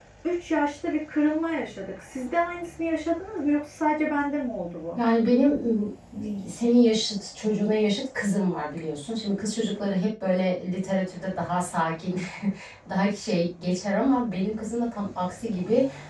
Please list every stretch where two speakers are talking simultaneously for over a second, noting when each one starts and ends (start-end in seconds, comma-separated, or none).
none